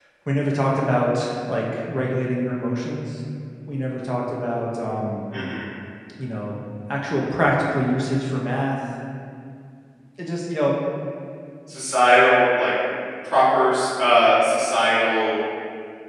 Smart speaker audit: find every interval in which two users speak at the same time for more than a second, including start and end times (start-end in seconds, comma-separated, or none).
none